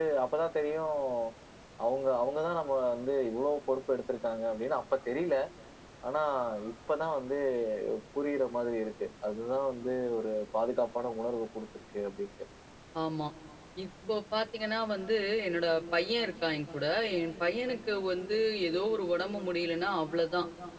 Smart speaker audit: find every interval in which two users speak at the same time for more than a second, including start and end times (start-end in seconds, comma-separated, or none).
none